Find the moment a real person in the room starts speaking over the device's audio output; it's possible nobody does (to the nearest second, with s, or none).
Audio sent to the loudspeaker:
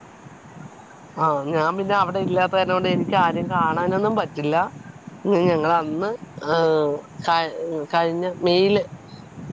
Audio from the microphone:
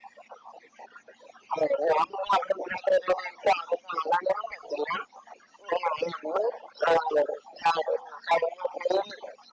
none